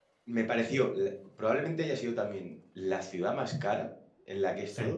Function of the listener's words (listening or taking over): listening